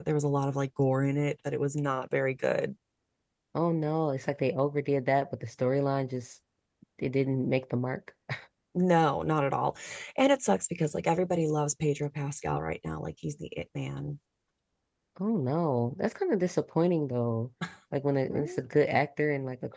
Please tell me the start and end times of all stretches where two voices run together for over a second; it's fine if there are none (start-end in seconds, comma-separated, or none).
none